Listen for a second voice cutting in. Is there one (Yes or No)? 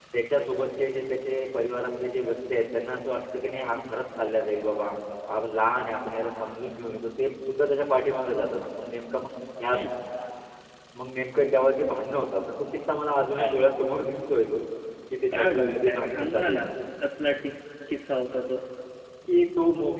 Yes